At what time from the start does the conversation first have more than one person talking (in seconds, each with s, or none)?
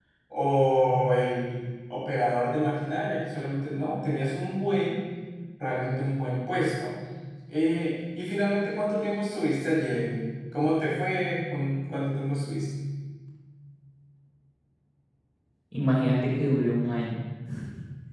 none